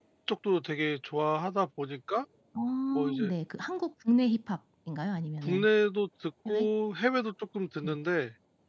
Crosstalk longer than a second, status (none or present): none